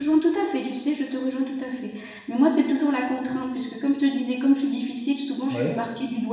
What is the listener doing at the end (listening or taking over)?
listening